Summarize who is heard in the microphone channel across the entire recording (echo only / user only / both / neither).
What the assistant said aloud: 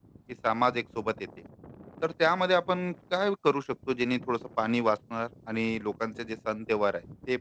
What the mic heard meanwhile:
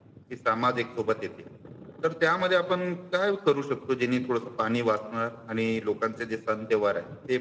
echo only